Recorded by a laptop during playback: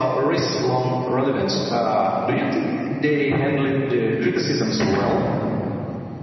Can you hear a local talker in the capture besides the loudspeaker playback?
No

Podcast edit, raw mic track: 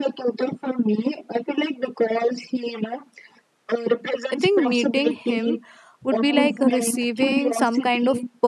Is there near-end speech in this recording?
Yes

